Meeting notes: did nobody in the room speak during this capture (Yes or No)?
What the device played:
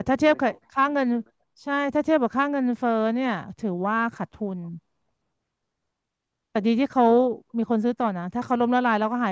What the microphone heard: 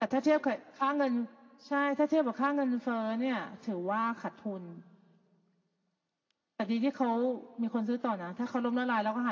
Yes